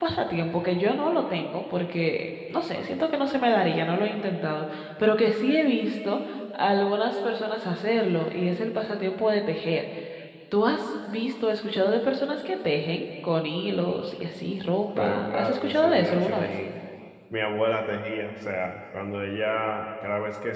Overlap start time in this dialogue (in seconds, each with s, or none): 15.0 s